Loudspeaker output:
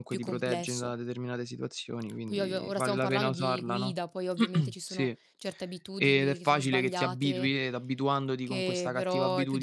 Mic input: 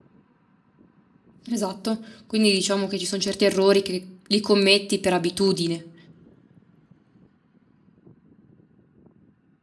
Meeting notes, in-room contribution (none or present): present